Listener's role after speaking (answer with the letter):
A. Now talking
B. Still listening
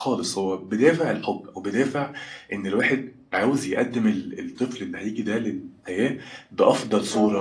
B